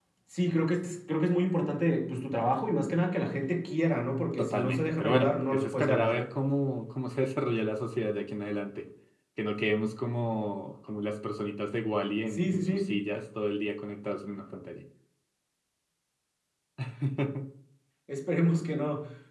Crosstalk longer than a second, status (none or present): present